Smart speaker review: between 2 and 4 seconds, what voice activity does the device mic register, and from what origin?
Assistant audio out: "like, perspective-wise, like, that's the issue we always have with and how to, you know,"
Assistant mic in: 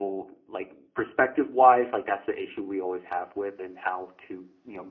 echo only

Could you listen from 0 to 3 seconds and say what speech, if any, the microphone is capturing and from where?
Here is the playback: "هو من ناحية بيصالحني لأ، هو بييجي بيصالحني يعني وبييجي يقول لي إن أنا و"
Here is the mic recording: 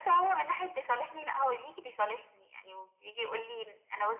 echo only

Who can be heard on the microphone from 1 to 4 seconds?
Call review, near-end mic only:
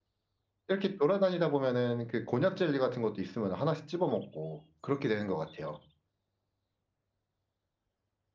user only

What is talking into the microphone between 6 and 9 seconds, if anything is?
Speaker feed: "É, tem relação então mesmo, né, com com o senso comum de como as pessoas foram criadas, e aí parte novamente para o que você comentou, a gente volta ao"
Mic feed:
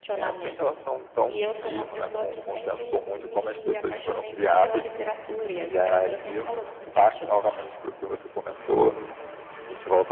both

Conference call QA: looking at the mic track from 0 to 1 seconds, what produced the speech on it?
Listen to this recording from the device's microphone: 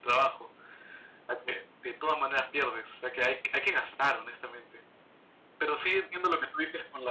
echo only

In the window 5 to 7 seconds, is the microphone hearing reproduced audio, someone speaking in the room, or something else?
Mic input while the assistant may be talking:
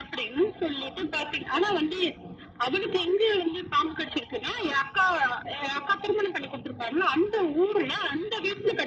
echo only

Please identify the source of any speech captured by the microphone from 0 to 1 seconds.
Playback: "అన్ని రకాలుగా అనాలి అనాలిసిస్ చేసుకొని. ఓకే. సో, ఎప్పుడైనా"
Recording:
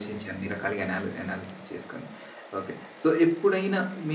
echo only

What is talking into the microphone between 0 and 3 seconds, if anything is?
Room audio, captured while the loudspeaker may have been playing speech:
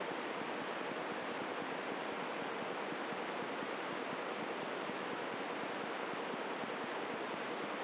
neither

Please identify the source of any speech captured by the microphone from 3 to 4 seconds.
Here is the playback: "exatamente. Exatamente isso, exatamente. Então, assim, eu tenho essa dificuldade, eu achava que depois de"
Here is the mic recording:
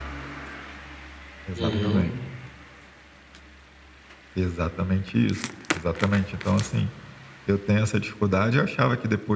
neither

